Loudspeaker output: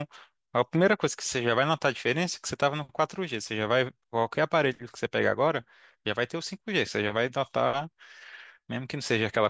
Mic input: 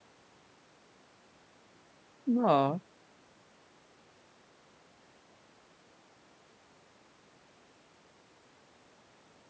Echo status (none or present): none